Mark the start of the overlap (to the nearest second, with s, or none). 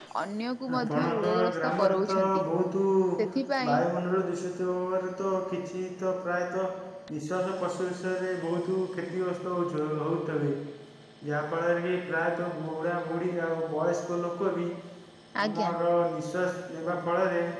1 s